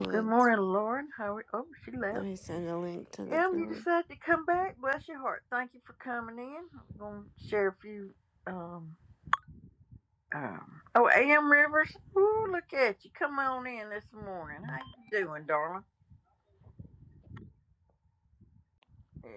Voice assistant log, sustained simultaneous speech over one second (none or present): none